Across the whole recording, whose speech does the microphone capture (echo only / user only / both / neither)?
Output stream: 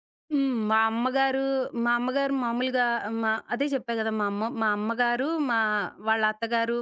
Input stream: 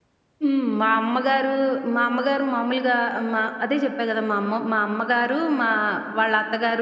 echo only